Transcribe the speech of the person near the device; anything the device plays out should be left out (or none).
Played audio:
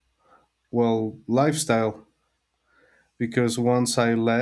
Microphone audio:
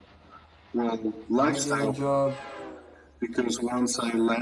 finding a job,